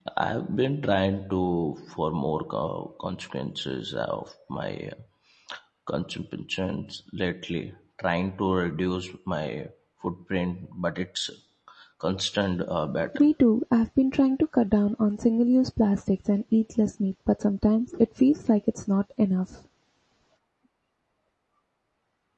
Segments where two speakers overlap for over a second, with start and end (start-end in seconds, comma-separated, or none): none